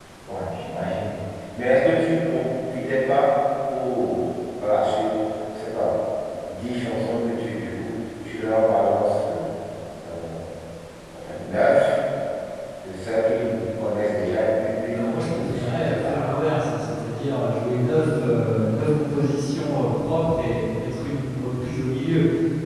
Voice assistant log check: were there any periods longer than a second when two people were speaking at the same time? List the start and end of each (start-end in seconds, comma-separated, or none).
14.9-16.1